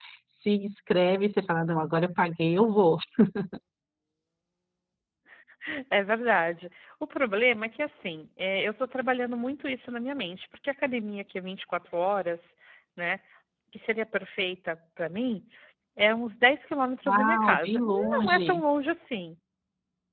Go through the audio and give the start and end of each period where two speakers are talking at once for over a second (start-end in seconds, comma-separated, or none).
17.1-18.5